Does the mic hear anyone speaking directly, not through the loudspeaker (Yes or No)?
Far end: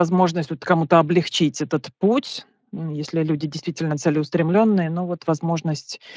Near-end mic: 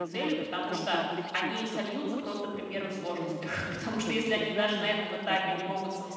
Yes